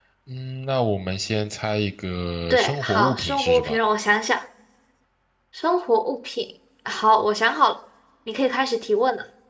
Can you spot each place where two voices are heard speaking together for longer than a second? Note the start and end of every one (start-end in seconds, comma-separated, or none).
2.5-3.8